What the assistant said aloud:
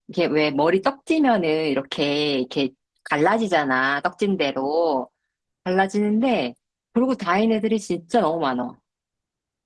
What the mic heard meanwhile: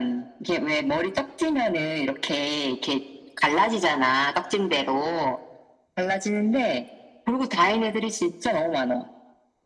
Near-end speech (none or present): none